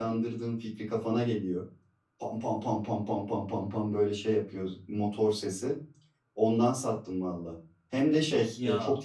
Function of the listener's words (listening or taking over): listening